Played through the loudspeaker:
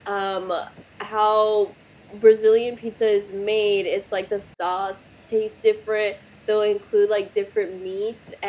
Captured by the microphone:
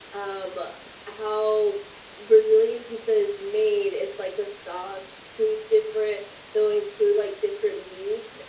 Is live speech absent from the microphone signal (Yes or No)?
Yes